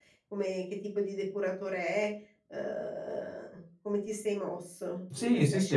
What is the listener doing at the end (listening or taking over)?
taking over